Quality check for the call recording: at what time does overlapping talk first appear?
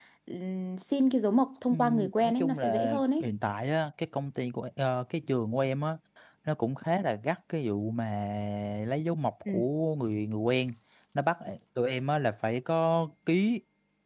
2 s

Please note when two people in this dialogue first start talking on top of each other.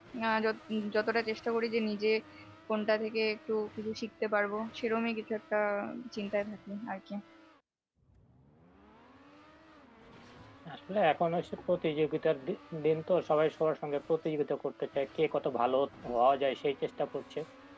none

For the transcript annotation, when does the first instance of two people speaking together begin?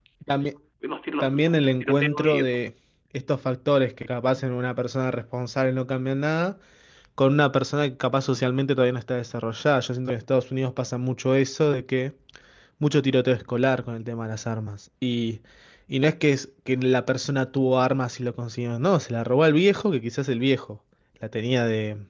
1 s

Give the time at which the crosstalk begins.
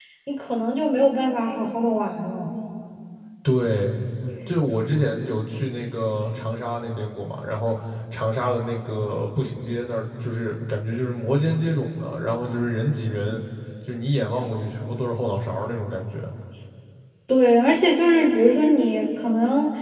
none

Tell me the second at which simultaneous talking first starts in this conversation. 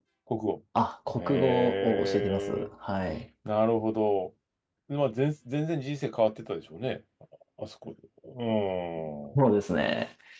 1 s

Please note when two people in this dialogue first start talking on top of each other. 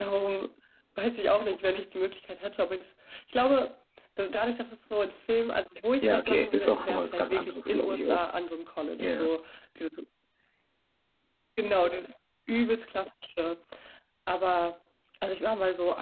6 s

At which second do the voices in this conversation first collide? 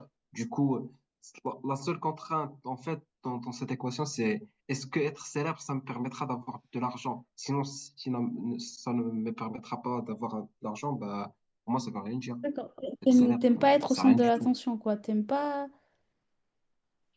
13 s

